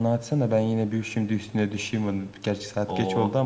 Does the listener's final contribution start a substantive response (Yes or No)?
No